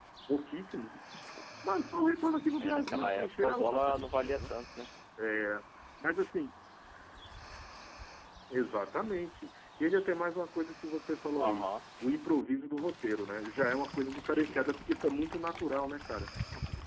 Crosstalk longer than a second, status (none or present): present